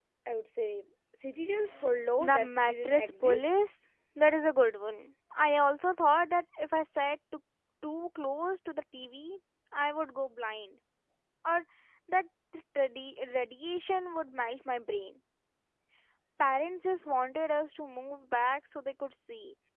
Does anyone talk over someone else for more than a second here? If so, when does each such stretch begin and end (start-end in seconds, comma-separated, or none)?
2.2-3.5